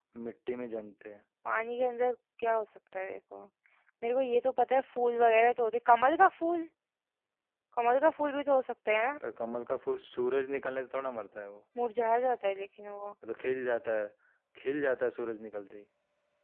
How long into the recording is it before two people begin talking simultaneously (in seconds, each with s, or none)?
none